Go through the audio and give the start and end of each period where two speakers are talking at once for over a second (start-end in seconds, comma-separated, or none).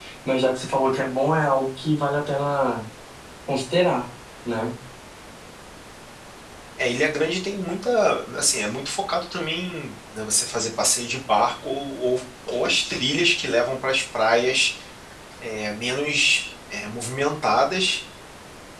none